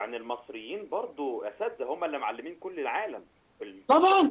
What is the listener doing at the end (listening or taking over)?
taking over